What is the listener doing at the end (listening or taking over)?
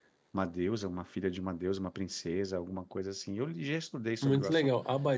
taking over